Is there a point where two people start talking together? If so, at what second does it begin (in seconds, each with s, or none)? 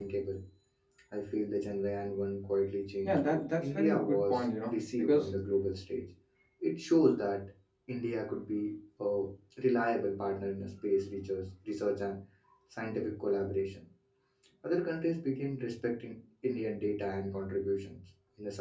3.0 s